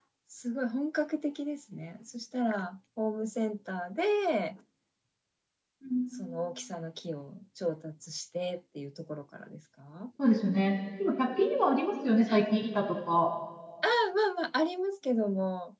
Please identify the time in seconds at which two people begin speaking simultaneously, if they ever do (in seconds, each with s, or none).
none